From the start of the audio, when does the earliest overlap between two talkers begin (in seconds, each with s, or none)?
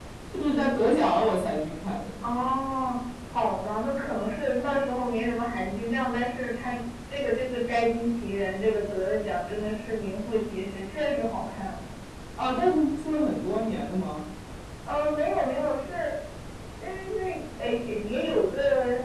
none